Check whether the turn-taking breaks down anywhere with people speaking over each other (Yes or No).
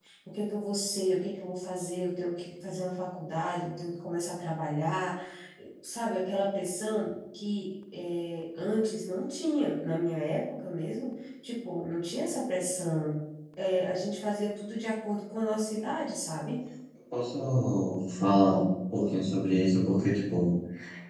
No